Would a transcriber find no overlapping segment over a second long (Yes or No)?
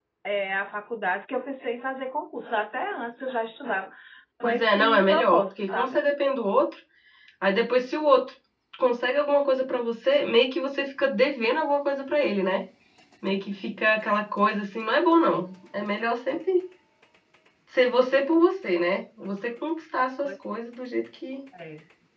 No